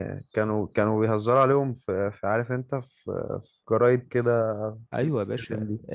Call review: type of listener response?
taking over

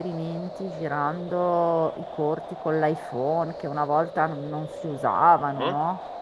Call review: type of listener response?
taking over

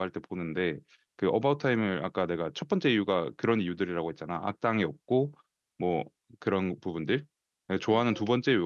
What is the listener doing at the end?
listening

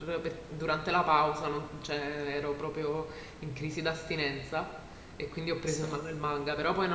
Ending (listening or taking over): listening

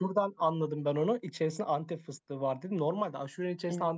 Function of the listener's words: listening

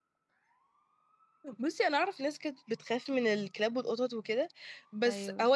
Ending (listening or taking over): listening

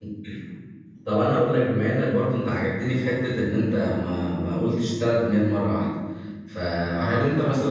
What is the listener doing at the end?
listening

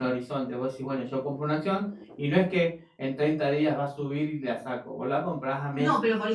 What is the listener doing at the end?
taking over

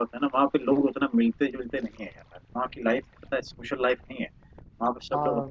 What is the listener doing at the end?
listening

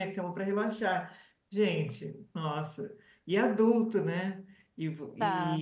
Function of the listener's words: listening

